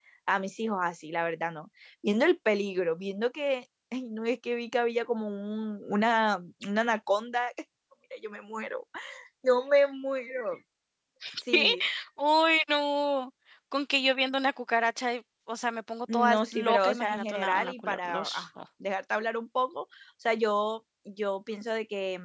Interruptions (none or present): present